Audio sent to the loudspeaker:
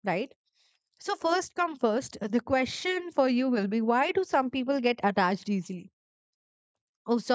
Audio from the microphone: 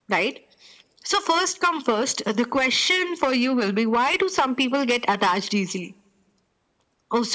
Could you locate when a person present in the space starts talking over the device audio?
none

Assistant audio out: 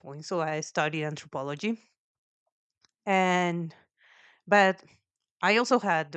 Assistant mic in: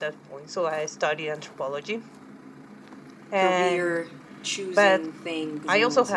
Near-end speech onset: 3.3 s

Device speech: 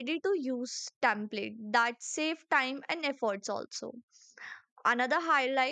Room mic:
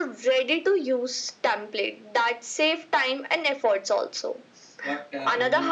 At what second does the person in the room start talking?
4.8 s

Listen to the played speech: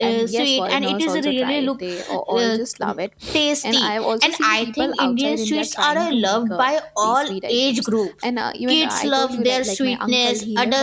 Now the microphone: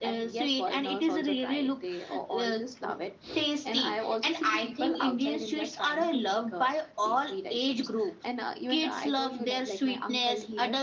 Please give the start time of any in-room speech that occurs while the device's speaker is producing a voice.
none

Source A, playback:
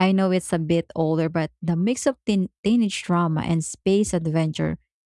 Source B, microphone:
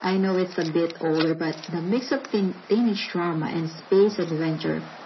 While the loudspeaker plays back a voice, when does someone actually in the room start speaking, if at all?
none

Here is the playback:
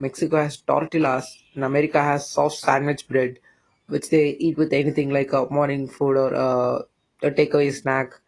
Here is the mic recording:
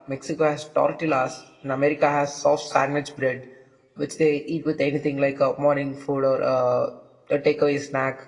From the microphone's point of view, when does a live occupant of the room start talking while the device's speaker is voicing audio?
none

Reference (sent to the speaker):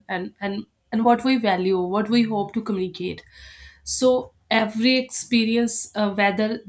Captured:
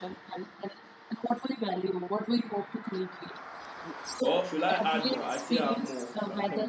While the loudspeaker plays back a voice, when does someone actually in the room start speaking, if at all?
4.2 s

